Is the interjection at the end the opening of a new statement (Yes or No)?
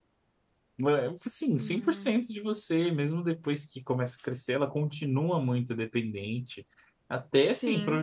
No